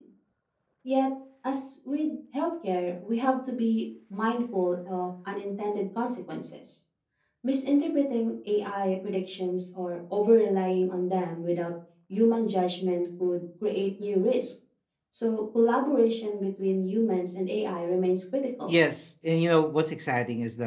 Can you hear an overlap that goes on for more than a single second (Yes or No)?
No